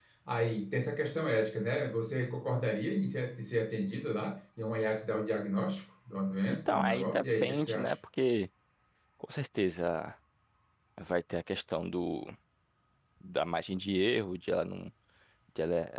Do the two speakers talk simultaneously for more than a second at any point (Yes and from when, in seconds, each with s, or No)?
Yes, from 6.7 s